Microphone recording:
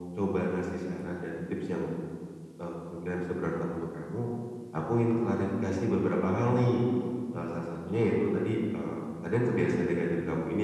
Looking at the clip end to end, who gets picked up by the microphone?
echo only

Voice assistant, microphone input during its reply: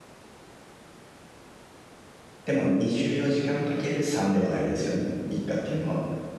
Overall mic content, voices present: user only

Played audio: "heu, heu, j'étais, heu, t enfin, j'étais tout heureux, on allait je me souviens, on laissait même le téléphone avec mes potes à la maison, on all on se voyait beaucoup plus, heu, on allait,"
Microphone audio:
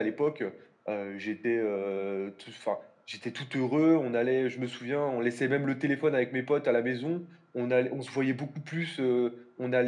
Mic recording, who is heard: echo only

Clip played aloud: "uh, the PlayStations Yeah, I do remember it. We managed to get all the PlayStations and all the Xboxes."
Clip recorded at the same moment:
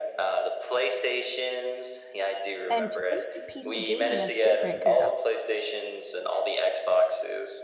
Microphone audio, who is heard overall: both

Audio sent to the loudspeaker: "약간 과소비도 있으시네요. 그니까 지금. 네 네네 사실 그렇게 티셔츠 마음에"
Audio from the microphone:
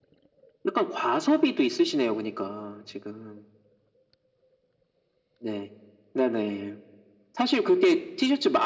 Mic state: echo only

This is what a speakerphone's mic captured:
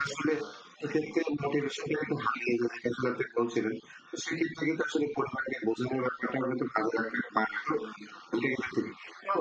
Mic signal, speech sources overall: echo only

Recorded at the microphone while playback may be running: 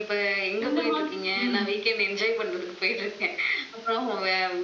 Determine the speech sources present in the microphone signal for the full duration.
both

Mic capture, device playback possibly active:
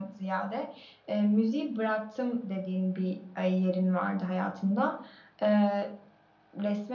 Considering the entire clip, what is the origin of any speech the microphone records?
echo only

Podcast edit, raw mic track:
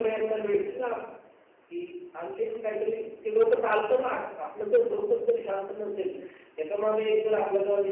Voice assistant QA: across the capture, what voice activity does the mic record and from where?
echo only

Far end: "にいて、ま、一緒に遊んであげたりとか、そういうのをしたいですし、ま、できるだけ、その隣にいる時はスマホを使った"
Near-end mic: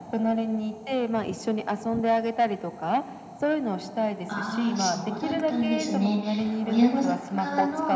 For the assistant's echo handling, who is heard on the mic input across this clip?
both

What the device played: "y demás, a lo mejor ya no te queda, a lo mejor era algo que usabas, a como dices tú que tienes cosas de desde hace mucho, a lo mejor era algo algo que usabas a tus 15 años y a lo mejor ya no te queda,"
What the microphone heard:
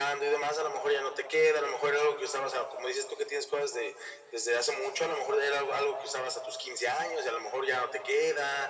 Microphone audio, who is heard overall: echo only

